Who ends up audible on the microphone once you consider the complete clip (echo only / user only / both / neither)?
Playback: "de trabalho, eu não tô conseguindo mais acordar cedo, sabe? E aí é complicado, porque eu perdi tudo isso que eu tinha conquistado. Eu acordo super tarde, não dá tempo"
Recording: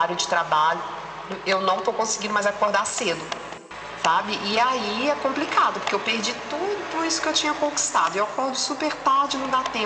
echo only